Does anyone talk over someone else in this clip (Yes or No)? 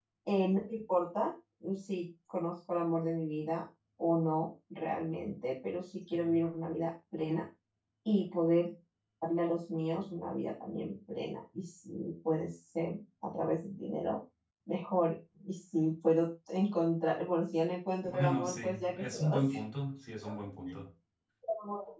Yes